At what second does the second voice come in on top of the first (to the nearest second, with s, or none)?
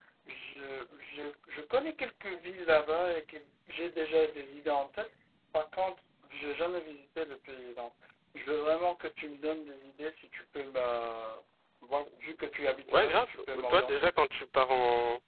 13 s